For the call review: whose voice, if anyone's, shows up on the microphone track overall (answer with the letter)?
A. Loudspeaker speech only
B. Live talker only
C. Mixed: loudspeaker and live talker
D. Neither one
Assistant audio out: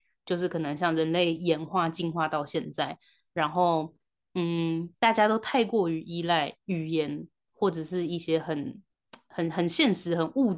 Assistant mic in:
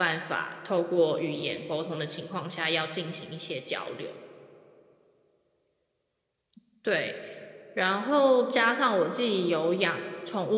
B